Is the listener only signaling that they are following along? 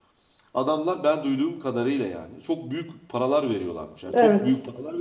Yes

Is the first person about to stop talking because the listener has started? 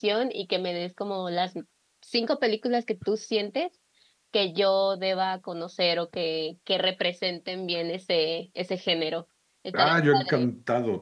Yes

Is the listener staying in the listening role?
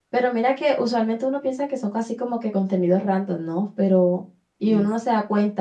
Yes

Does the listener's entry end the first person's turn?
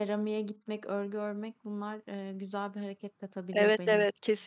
Yes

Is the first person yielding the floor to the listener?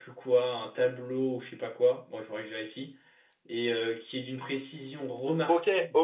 Yes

